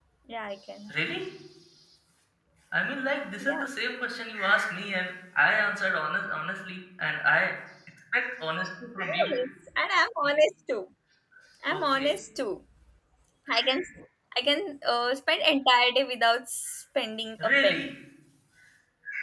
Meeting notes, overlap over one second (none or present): none